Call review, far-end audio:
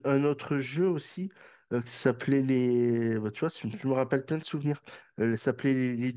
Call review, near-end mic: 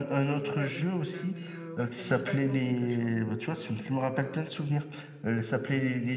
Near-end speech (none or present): present